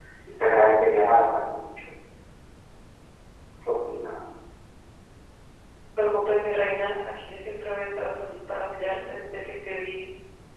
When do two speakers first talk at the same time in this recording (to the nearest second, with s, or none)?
none